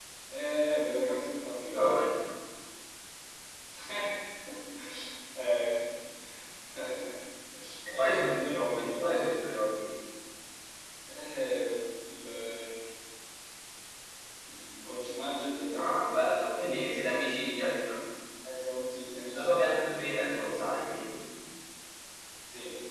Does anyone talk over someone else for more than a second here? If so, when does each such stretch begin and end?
7.9-9.2, 19.3-20.7

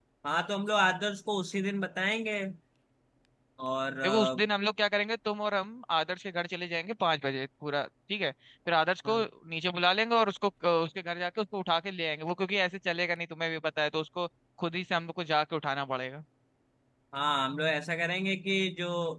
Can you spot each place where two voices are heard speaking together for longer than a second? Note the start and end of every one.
none

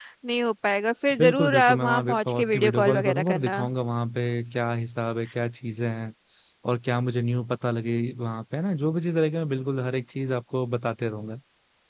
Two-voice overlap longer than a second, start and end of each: 1.2-3.6

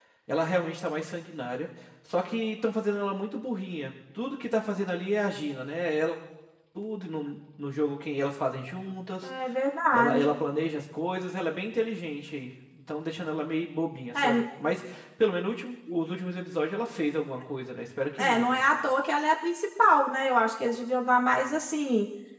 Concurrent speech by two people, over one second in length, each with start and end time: none

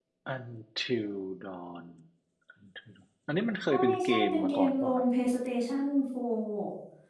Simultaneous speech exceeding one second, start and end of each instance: 3.7-5.0

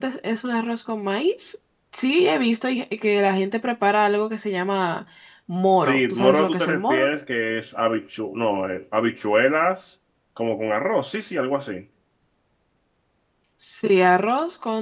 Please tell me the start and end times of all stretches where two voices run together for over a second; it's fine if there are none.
5.8-7.1

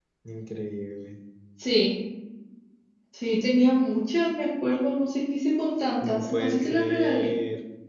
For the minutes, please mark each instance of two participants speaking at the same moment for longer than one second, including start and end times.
6.0-7.3

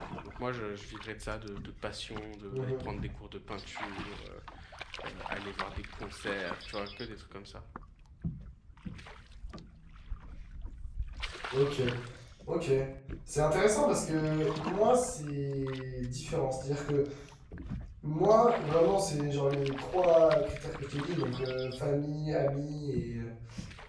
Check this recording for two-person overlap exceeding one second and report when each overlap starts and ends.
none

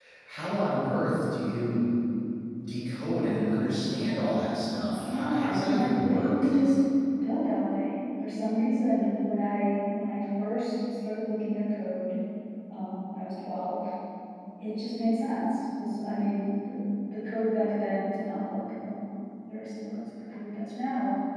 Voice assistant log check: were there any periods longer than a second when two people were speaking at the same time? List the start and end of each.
5.0-6.5

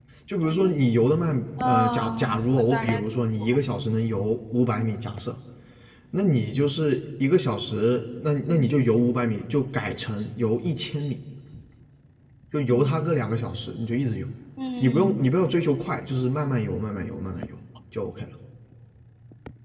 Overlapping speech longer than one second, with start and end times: 1.6-3.0

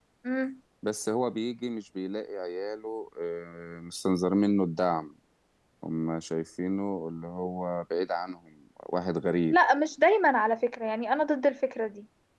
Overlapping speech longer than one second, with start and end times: none

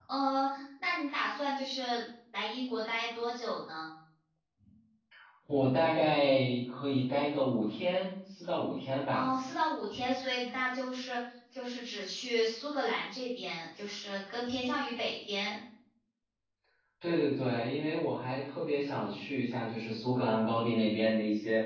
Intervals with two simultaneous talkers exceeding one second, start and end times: none

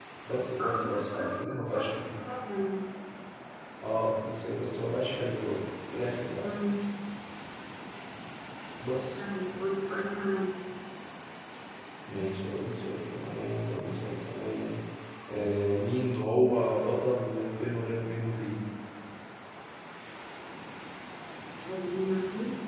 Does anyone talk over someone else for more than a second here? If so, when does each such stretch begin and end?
0.6-1.9

